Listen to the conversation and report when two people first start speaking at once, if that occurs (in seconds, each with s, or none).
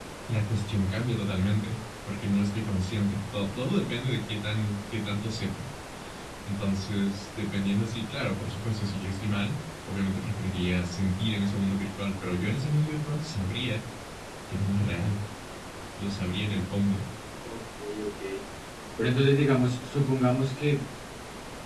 none